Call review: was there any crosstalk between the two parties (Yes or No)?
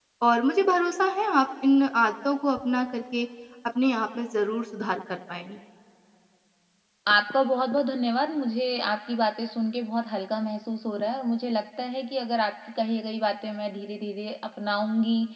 No